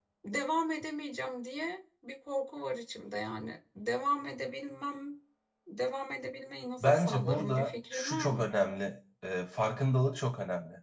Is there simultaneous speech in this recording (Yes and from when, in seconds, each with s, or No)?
Yes, from 6.8 s